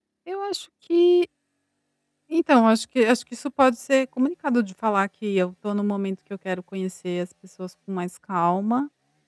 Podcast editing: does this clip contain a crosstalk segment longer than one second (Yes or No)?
No